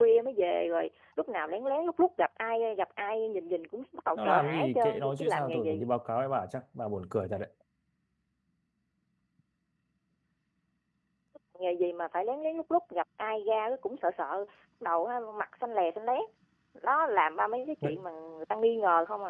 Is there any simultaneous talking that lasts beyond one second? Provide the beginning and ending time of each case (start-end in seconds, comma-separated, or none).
4.2-5.8